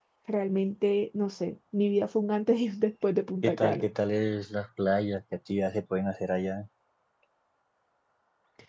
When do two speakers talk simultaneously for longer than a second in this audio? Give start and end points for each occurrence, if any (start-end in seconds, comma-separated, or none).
none